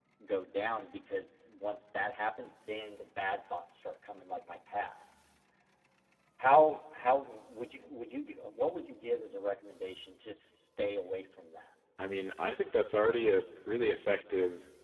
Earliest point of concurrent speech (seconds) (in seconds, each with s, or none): none